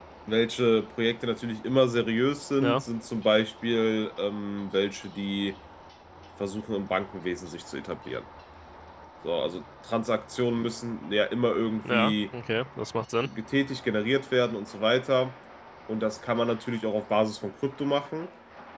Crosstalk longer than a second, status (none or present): none